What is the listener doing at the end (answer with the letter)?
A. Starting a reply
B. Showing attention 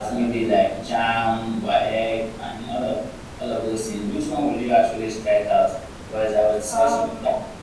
B